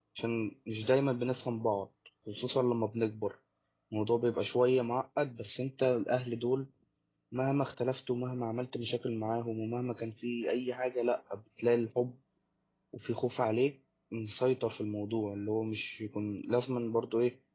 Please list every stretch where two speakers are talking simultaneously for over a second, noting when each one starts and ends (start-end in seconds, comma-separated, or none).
none